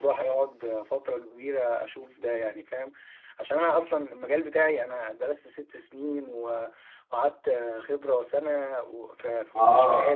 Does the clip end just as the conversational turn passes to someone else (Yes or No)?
Yes